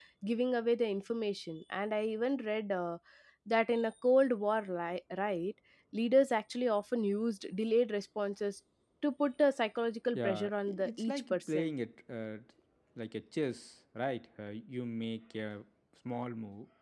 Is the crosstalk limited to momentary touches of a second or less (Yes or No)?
No